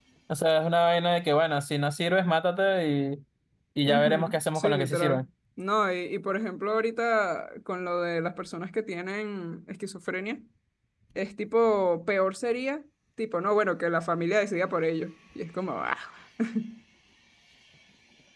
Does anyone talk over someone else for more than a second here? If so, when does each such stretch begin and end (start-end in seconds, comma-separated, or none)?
3.9-5.2